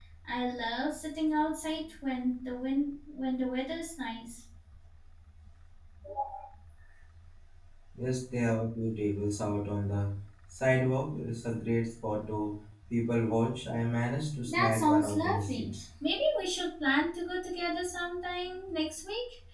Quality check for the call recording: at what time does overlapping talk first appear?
14.5 s

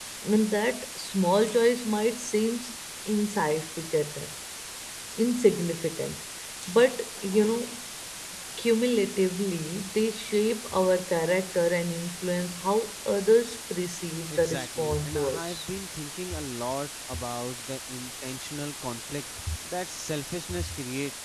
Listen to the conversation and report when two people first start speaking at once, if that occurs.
14.3 s

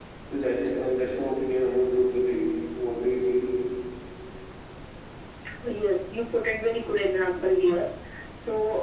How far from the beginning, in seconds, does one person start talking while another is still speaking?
none

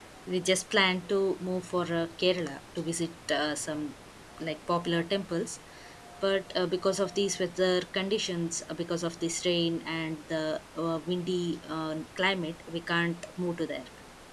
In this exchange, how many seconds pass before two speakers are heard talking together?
none

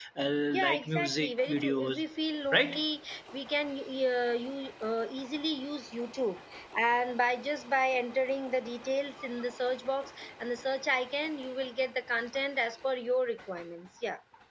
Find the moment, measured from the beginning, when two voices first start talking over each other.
0.6 s

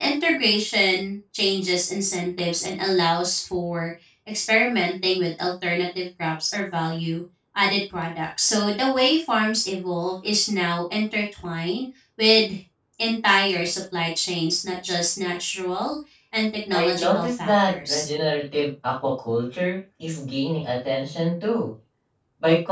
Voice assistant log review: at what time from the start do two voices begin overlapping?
16.7 s

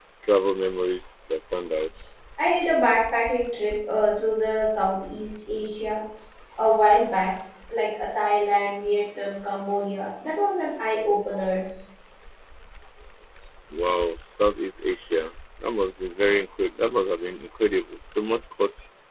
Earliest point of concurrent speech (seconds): none

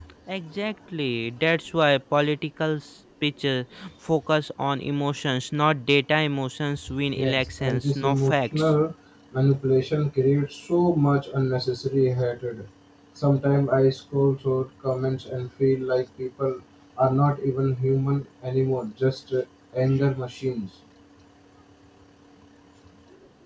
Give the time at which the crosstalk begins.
7.2 s

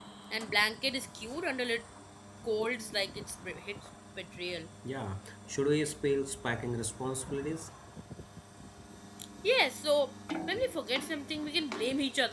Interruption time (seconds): none

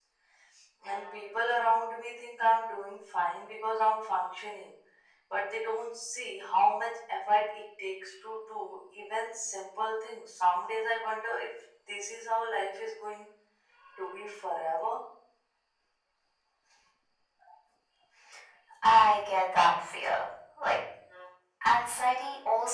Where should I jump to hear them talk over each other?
none

